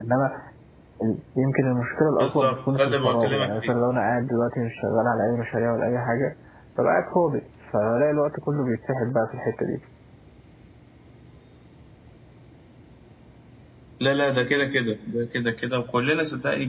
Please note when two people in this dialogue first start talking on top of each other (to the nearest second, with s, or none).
2 s